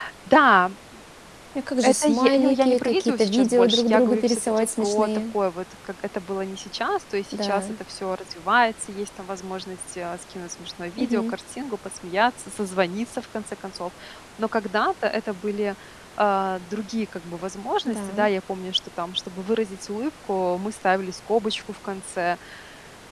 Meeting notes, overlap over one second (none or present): present